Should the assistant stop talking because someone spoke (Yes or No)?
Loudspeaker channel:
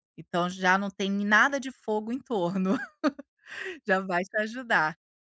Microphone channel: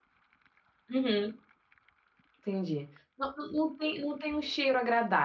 Yes